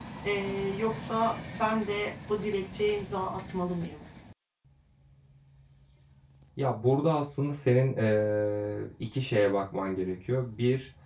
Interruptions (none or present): none